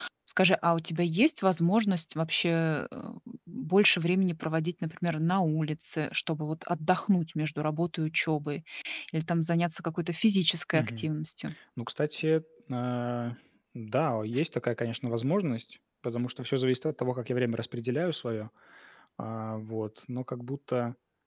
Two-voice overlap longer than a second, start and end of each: none

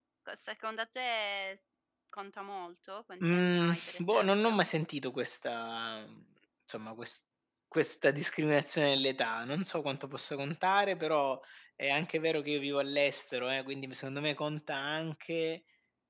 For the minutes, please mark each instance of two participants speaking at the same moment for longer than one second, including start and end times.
3.2-4.6

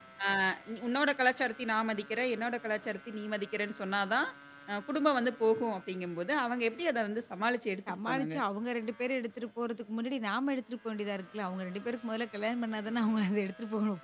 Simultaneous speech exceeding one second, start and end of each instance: none

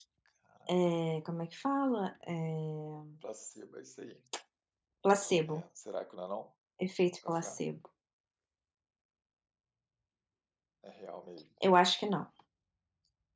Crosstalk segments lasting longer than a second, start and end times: none

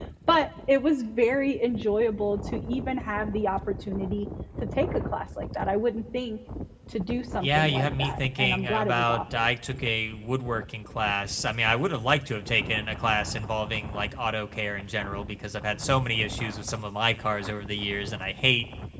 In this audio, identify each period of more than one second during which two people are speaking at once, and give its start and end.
7.4-9.5

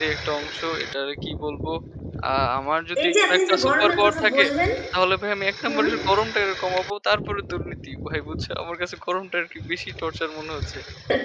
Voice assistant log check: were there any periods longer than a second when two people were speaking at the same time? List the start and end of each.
3.0-4.4

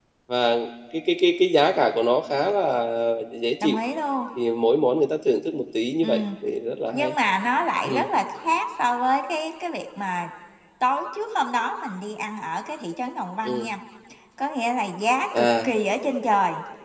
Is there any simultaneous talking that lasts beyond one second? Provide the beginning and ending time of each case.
none

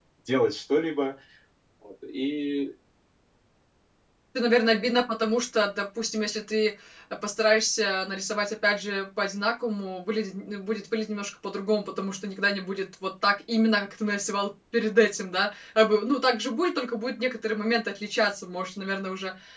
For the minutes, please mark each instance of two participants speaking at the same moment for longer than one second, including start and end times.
none

